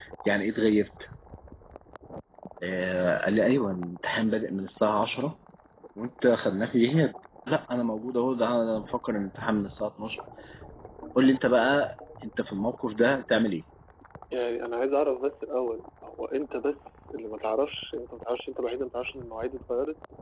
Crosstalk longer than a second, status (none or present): none